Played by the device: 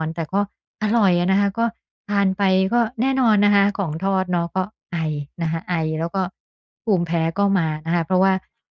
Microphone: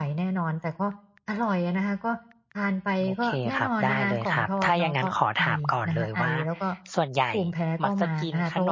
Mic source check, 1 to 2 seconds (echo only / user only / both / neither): echo only